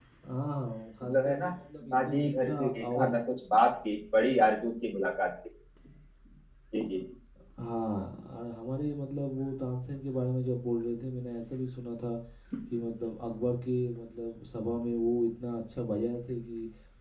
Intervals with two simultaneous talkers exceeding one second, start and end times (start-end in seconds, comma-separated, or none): 1.9-3.1